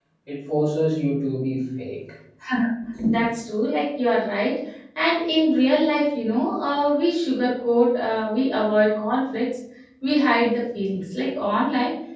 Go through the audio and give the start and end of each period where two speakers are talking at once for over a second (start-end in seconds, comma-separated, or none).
none